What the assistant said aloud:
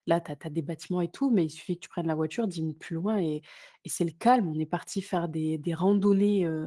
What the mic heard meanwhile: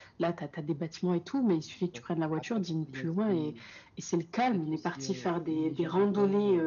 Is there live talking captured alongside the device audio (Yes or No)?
Yes